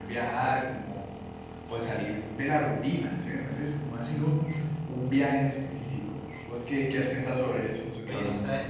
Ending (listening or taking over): taking over